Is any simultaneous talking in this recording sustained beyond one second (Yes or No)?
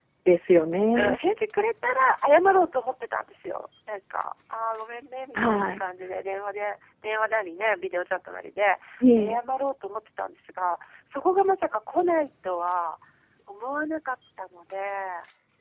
No